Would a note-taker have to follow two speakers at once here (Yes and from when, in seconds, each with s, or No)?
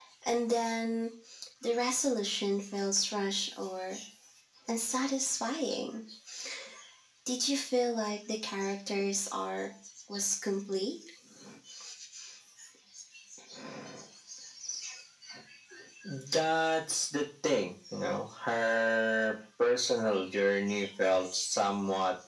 No